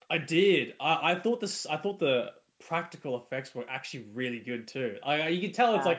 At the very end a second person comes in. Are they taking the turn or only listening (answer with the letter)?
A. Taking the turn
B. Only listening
B